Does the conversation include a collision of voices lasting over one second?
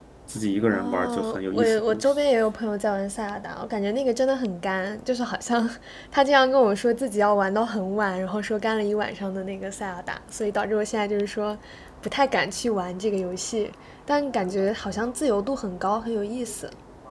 Yes, from 0.7 s

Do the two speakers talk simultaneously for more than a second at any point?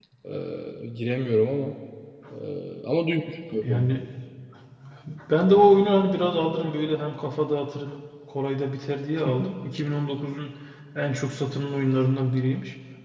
No

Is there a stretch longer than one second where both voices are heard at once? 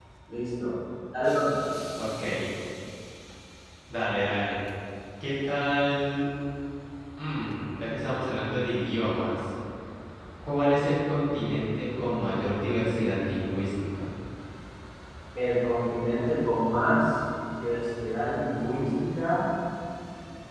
No

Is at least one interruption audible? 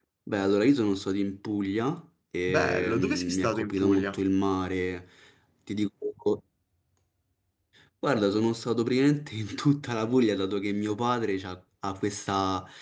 Yes, from 2.5 s

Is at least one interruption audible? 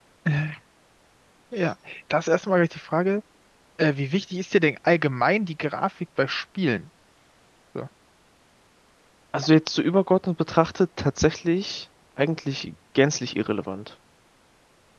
No

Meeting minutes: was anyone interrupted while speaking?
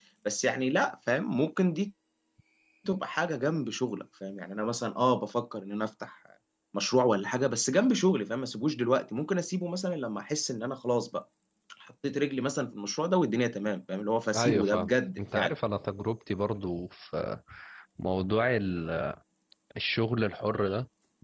Yes, from 14.3 s

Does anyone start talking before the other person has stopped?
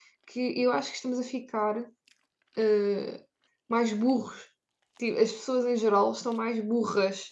No

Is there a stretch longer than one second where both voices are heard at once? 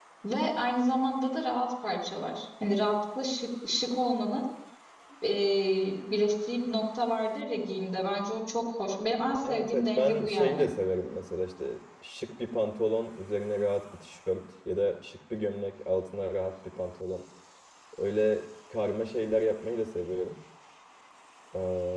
Yes, from 9.4 s

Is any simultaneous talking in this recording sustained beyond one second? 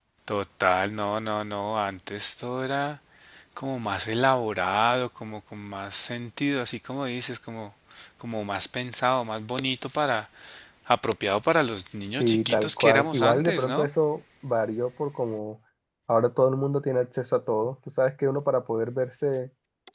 Yes, from 12.1 s

